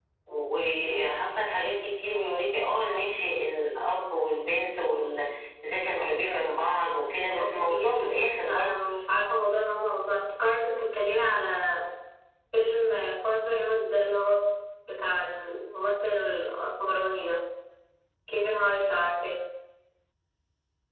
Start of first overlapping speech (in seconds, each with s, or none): 7.4 s